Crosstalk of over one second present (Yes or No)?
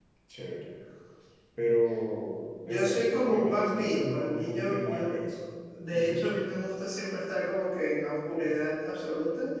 Yes